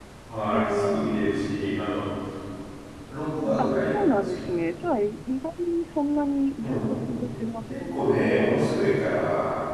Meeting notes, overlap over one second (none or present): present